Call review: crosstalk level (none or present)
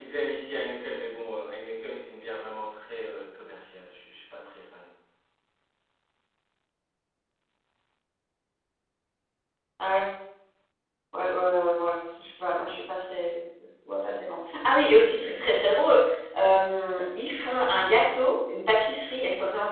none